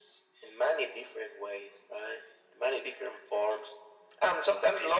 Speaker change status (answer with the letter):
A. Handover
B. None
B